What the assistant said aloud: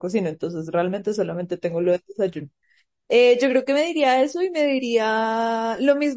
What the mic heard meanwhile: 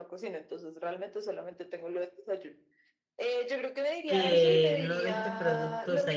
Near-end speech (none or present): present